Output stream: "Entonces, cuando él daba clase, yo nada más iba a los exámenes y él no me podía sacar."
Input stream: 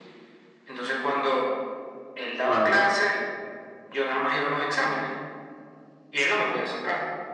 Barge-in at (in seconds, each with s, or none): 2.4 s